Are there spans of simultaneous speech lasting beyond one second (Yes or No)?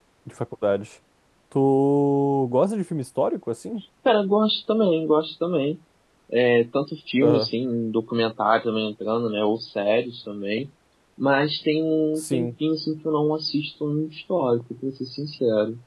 No